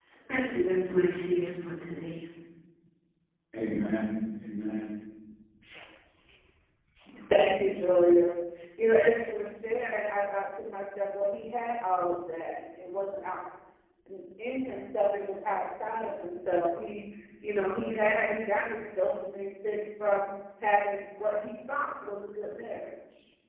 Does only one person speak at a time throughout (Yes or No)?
Yes